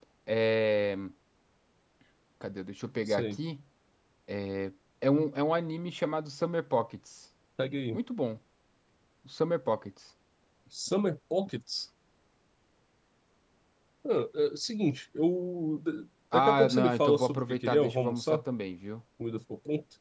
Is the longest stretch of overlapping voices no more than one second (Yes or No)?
No